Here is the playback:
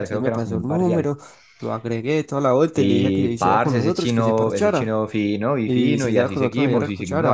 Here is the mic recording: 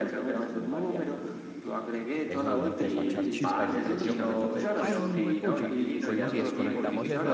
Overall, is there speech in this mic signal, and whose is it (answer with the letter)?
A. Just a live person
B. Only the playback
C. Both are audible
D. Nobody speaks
C